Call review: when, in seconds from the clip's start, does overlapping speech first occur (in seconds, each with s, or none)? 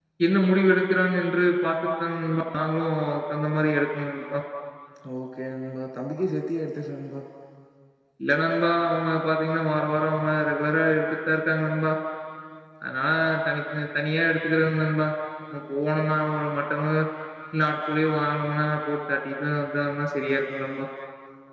none